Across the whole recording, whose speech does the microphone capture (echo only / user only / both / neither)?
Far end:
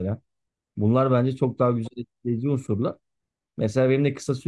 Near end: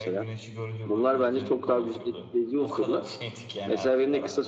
both